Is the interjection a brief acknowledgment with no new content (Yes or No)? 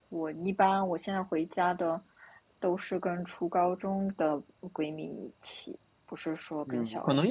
No